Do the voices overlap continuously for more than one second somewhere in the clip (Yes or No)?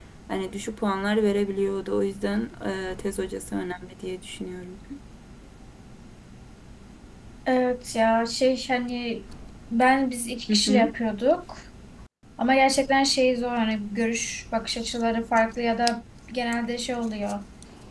No